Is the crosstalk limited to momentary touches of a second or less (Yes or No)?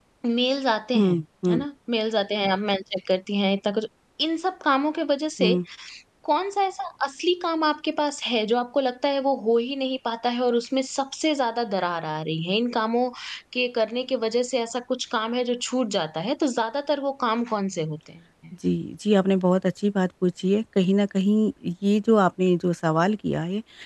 Yes